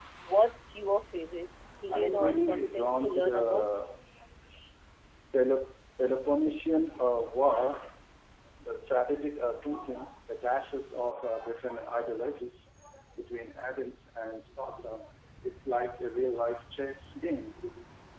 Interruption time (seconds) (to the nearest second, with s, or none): 2 s